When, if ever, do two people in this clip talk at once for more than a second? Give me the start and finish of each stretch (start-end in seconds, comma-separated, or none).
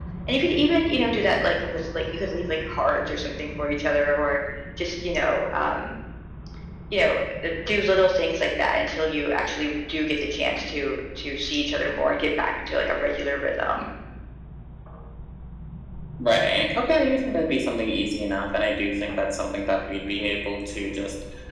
none